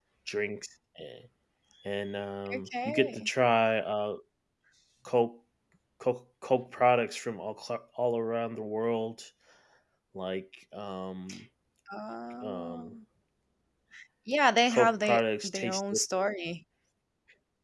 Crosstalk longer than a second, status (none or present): present